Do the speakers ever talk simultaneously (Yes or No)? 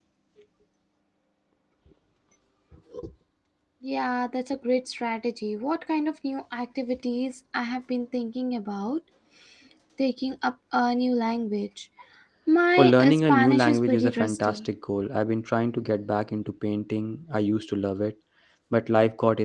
Yes